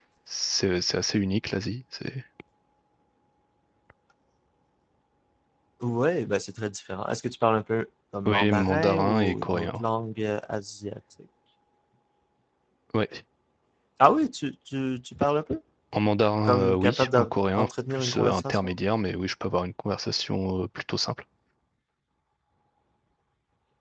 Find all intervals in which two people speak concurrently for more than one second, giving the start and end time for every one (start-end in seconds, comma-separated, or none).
8.2-9.8, 16.4-18.8